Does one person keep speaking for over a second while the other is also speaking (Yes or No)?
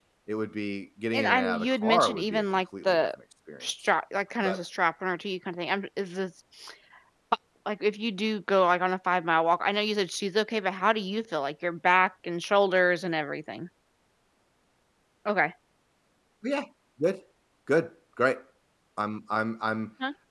Yes